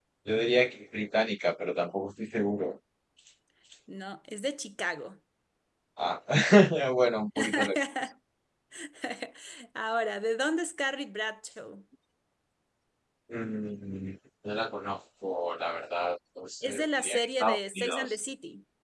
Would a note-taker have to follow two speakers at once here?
Yes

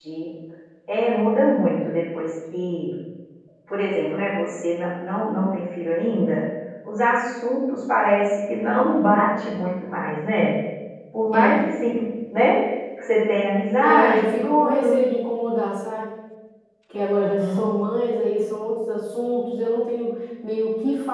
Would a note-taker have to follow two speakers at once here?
Yes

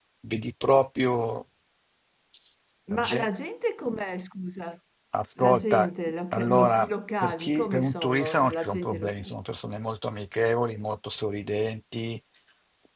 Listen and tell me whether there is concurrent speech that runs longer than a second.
Yes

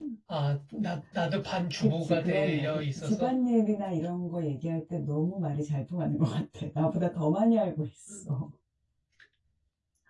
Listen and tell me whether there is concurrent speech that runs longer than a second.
Yes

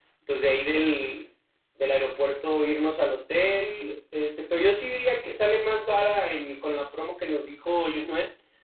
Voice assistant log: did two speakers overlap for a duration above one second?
No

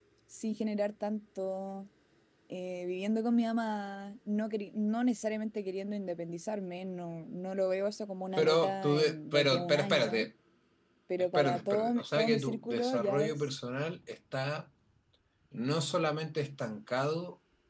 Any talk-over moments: Yes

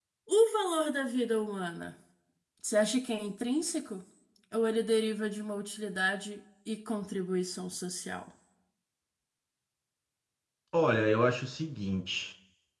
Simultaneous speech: No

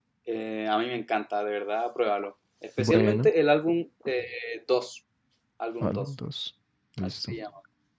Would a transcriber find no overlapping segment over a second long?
Yes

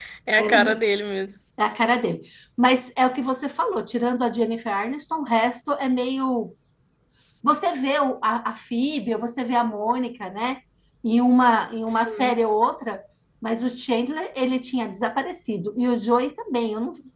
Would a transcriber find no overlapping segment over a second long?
Yes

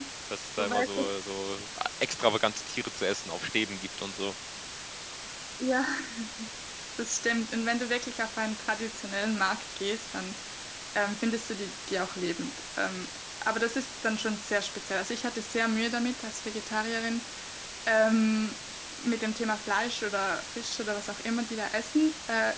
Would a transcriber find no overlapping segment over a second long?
Yes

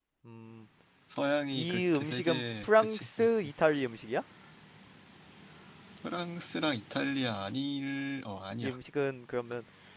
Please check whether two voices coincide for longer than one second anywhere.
Yes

